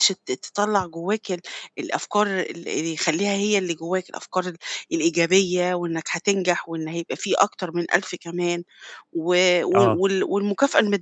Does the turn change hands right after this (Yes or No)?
No